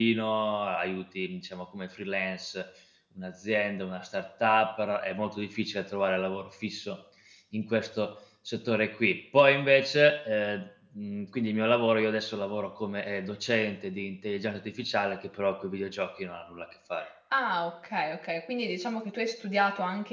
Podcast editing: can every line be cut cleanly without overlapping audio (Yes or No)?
Yes